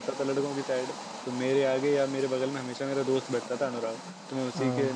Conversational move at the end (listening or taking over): listening